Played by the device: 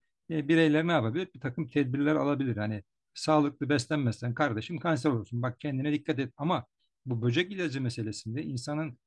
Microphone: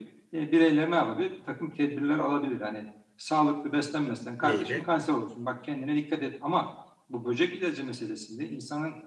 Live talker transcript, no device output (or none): meyve